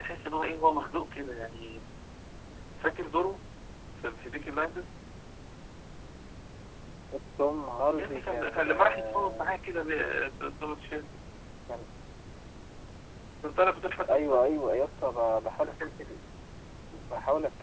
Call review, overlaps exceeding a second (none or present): present